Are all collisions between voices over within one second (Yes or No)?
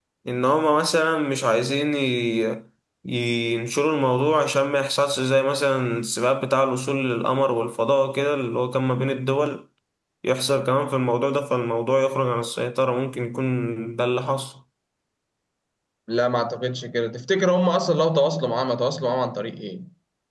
Yes